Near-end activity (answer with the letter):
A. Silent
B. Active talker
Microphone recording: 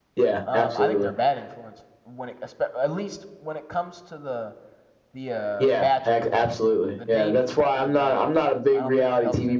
B